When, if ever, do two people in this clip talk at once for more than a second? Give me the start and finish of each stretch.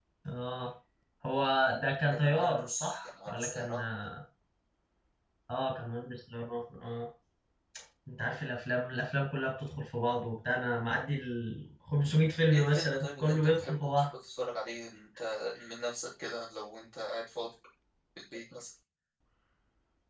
2.1-3.8, 12.5-14.1

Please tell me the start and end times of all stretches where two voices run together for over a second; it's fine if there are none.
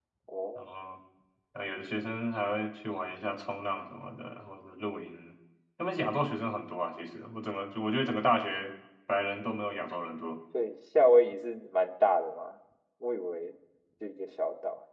none

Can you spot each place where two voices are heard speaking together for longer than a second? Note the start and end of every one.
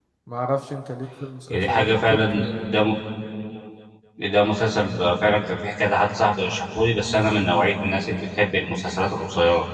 1.5-2.8

